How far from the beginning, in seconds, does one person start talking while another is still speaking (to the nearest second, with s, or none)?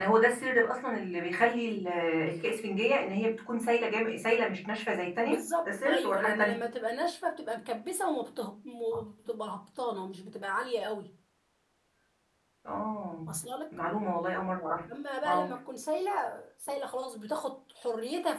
5 s